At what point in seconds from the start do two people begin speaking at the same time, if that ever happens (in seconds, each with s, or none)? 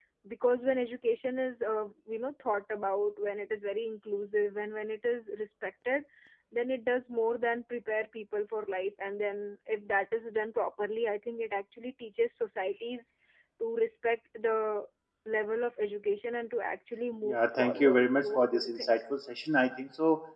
17.2 s